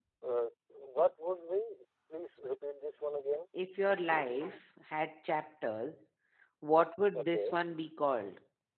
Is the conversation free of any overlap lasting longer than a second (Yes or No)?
Yes